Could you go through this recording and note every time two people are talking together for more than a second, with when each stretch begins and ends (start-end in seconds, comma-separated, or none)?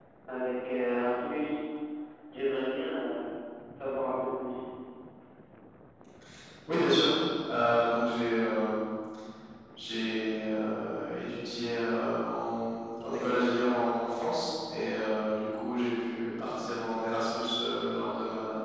none